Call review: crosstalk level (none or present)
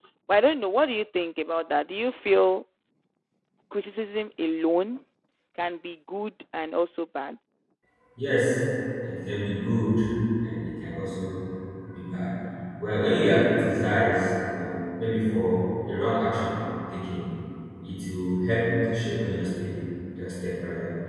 none